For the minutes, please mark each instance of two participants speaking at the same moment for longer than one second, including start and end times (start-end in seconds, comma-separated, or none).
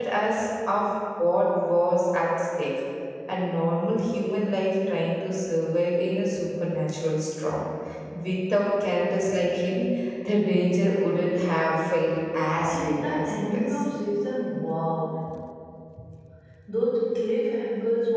12.6-13.8